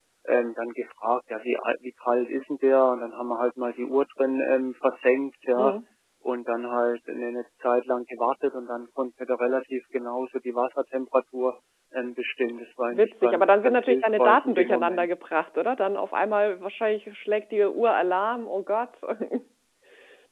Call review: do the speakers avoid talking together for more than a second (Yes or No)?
No